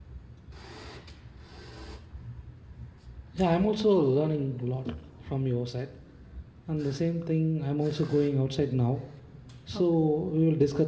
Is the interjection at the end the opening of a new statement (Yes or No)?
No